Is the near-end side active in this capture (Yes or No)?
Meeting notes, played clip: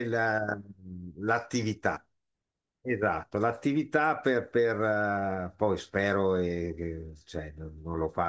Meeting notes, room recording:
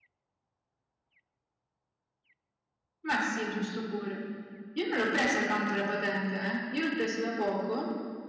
Yes